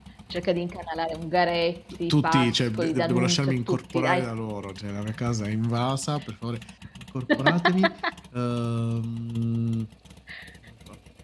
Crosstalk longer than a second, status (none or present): present